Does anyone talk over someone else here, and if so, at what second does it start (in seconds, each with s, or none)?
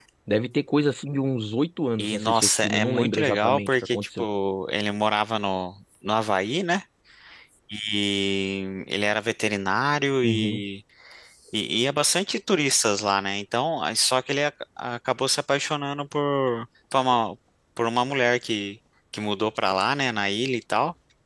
2.0 s